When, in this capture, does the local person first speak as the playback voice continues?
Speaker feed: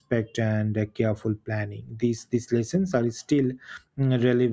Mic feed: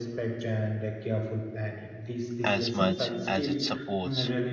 2 s

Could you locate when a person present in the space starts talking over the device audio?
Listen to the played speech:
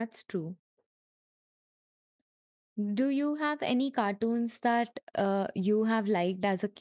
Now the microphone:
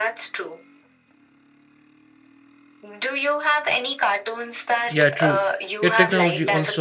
5 s

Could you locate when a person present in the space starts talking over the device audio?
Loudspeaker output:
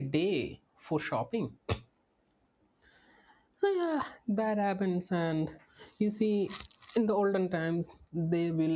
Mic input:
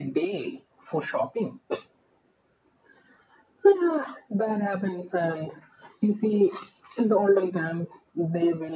none

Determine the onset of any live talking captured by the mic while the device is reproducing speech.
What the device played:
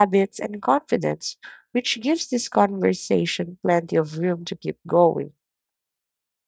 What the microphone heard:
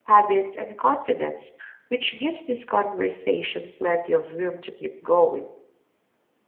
none

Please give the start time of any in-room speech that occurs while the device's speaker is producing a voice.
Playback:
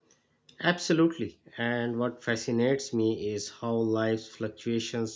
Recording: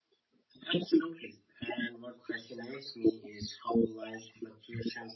none

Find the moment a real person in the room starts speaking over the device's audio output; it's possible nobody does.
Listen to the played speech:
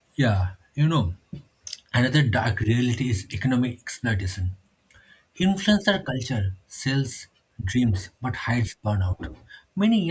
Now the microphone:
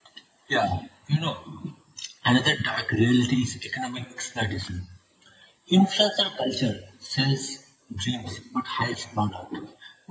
none

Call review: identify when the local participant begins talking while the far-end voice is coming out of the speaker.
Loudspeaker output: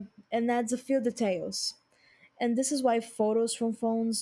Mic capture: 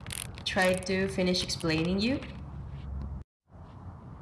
0 s

